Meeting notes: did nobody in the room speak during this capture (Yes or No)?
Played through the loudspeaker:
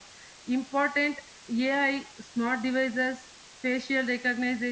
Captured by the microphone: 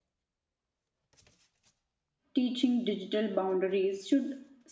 No